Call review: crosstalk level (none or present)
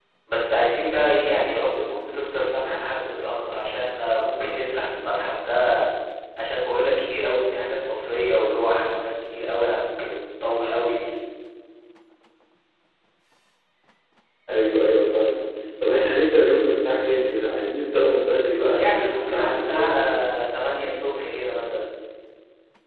present